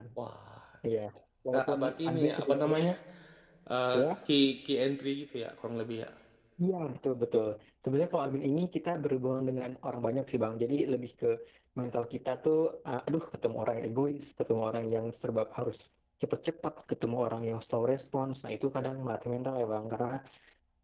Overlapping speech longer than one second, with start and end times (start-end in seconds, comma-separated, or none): 1.5-2.8